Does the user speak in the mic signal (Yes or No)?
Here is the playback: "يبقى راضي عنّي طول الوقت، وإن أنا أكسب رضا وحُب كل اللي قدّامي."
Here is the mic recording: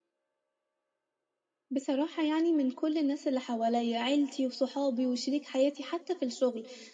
Yes